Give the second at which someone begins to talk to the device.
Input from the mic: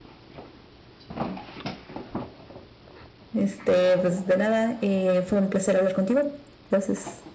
none

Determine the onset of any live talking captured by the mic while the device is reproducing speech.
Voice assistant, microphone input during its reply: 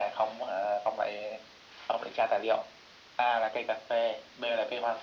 none

